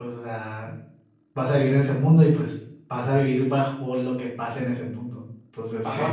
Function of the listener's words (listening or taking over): taking over